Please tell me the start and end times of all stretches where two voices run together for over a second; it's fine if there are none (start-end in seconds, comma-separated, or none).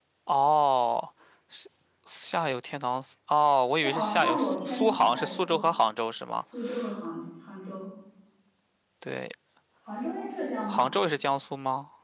3.8-5.6